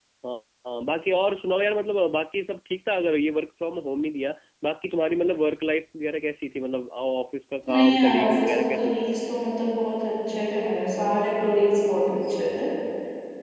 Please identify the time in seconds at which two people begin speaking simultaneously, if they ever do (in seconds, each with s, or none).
7.7 s